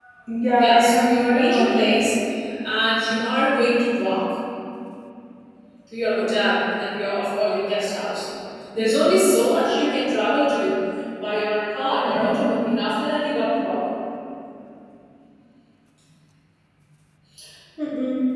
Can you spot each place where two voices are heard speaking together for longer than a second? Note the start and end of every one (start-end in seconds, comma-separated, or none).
0.5-1.9